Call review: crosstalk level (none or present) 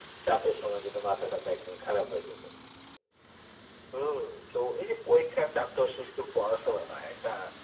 none